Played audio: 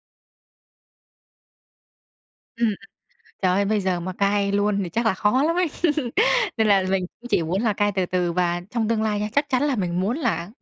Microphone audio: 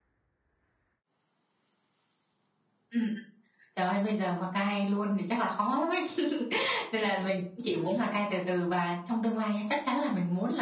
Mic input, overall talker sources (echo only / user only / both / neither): both